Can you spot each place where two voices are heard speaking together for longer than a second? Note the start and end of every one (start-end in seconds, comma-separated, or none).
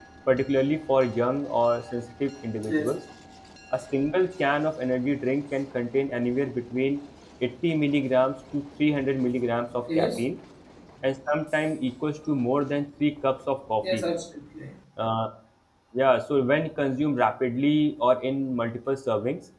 none